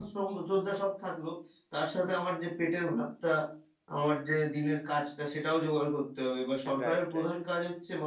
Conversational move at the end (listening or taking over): listening